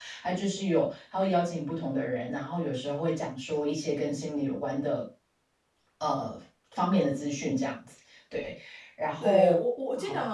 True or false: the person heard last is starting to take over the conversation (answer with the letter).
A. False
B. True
B